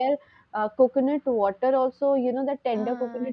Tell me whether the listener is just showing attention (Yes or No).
Yes